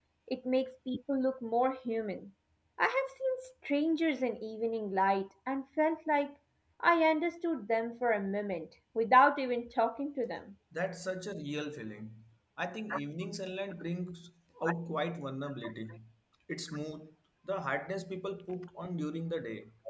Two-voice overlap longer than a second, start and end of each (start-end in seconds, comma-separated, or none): none